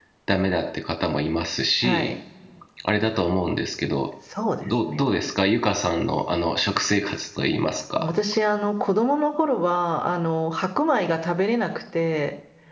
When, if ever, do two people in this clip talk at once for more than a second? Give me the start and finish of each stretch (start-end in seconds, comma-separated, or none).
none